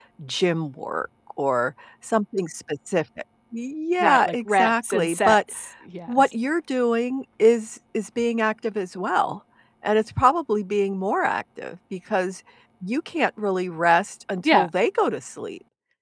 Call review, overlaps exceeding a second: present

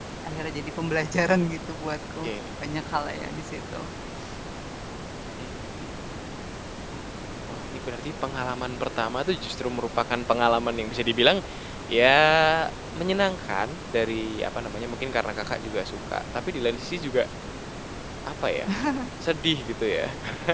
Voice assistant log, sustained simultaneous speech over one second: none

